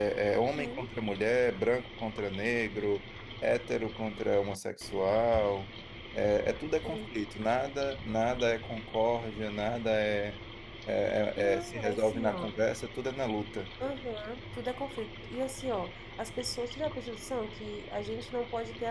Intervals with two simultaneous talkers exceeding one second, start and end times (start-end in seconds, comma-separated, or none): 11.4-12.6